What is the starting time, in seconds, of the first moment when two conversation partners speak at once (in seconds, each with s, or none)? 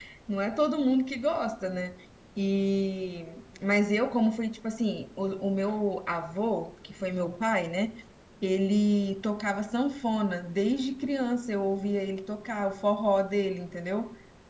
none